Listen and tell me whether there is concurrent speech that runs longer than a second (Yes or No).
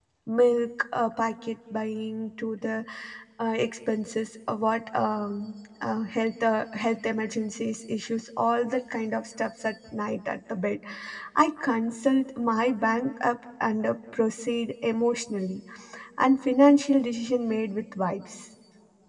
No